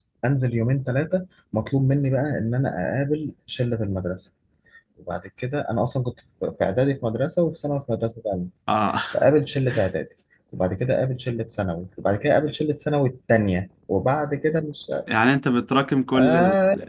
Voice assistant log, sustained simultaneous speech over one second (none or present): none